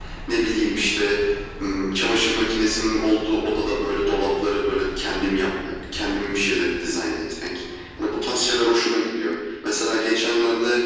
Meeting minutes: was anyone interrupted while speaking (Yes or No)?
No